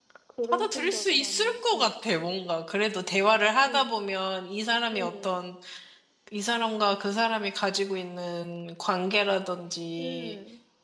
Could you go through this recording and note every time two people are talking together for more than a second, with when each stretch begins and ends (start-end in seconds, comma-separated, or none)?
0.5-1.9